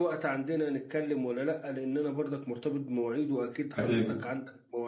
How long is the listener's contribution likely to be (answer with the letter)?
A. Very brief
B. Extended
A